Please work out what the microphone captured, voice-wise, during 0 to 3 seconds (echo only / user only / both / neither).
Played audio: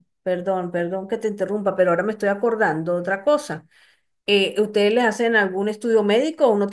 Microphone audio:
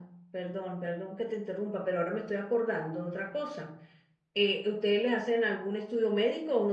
echo only